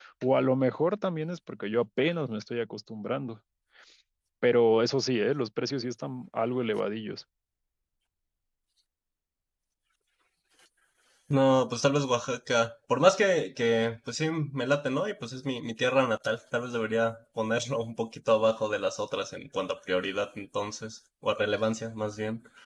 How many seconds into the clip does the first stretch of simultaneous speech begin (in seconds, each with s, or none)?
none